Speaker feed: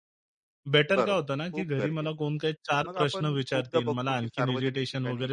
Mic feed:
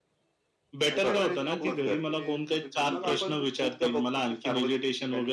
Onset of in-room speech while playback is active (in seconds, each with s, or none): 0.9 s